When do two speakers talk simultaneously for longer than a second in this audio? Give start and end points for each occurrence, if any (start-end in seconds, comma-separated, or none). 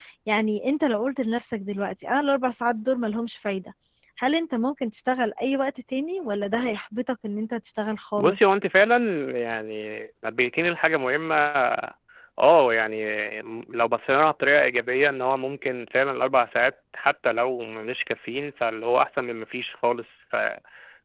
none